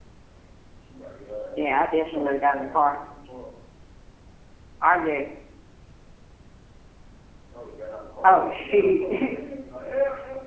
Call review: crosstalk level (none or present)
present